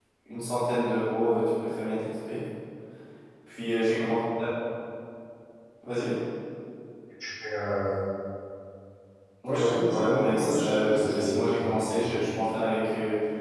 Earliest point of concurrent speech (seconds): 9.5 s

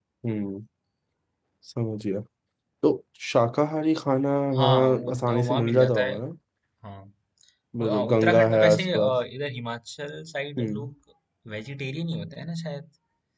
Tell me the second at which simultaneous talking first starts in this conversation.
4.5 s

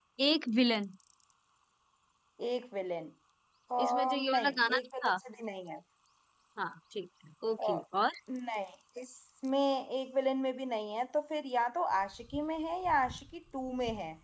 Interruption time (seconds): 3.8 s

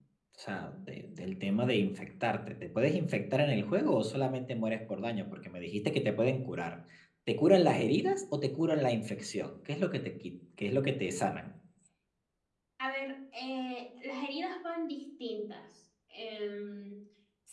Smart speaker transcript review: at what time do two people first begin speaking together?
none

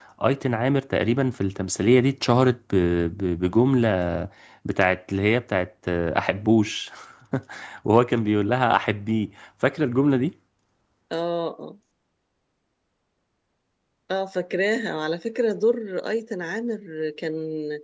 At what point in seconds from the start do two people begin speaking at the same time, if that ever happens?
none

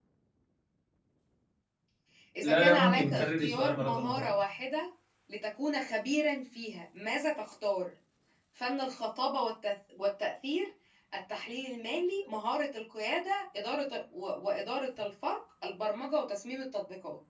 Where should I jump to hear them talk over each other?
2.4 s

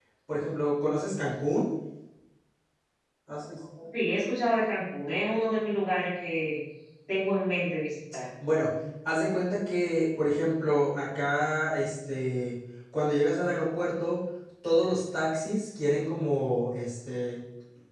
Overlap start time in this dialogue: none

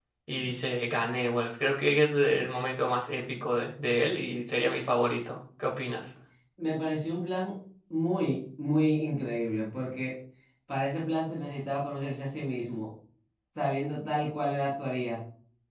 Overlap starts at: none

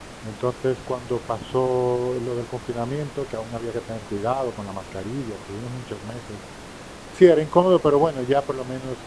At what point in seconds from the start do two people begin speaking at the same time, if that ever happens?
none

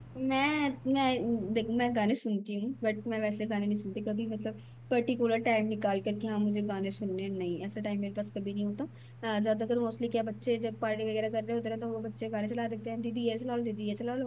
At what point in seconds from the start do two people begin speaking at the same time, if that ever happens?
none

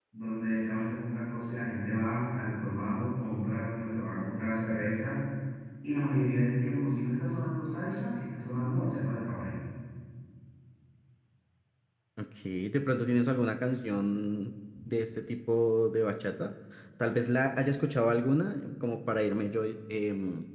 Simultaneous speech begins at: none

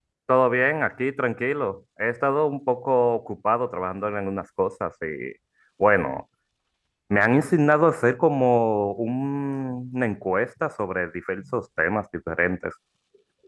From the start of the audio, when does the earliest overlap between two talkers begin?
none

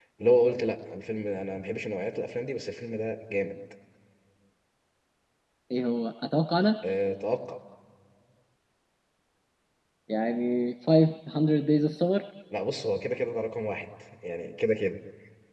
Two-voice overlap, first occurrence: none

